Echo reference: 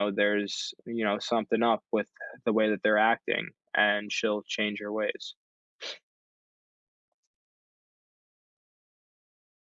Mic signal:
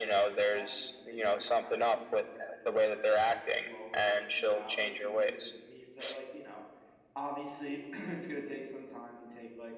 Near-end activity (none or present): present